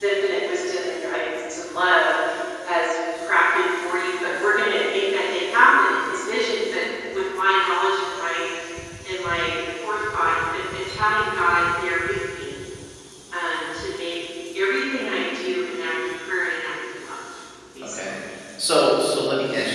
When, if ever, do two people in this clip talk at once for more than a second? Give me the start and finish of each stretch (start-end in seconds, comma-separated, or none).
none